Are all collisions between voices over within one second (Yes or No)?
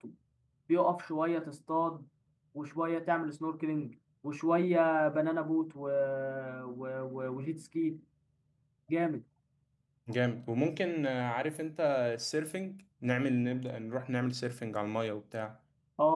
Yes